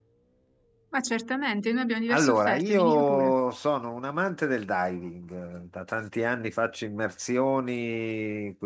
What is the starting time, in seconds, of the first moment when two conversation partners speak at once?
2.1 s

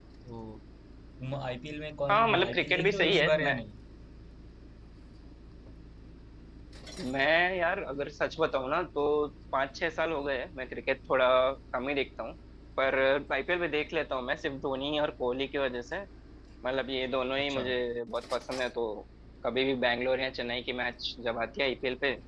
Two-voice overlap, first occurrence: 2.1 s

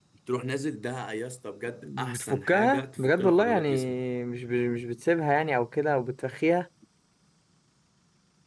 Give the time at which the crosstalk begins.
1.8 s

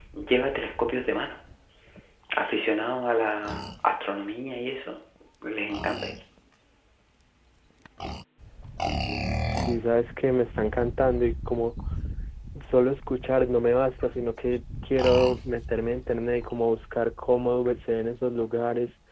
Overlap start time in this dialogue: none

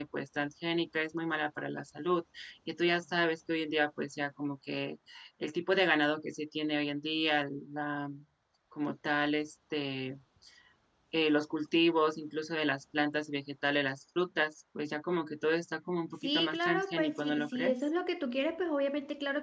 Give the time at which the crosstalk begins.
16.2 s

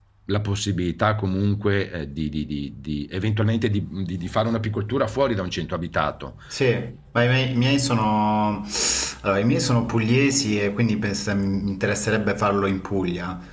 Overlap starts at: none

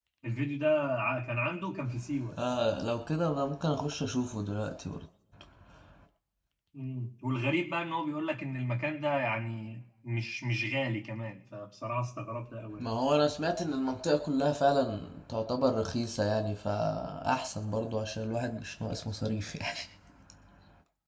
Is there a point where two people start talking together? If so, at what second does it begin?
none

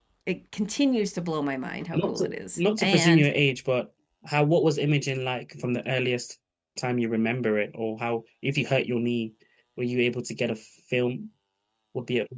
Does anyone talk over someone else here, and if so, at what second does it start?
1.9 s

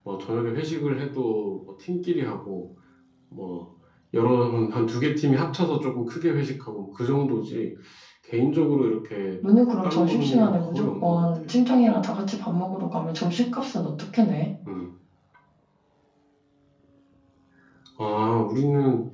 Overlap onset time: 9.8 s

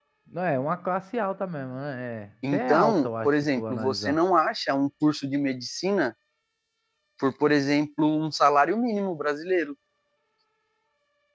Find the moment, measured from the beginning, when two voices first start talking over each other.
2.4 s

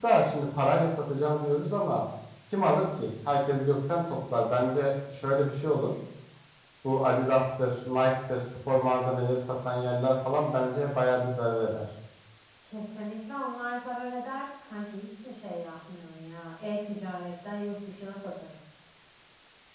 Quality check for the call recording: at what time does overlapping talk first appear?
none

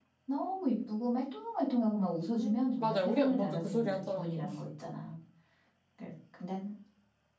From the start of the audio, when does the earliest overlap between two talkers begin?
2.4 s

